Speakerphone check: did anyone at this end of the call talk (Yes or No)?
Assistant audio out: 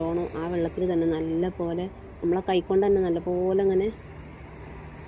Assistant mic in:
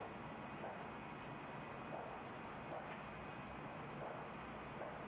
No